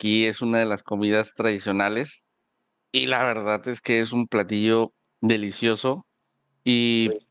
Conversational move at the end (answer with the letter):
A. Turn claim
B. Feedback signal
B